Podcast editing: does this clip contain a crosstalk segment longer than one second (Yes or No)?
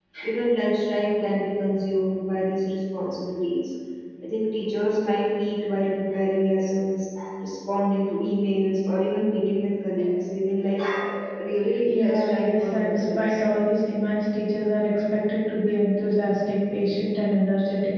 Yes